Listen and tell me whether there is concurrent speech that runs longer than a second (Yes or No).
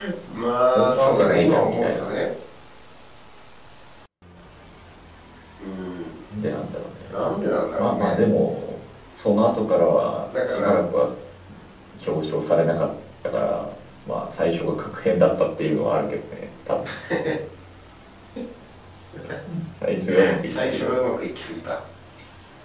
Yes